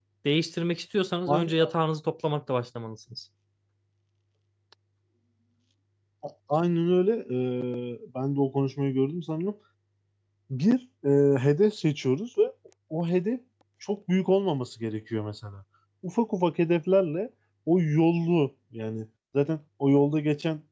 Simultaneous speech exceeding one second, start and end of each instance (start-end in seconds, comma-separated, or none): none